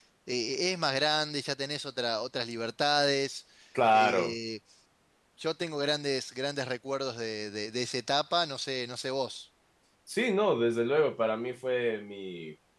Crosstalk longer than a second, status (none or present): none